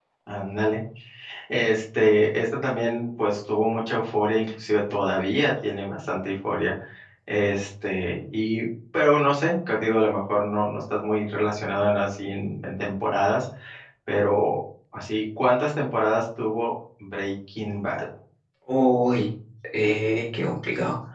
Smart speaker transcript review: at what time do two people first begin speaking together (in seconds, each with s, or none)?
none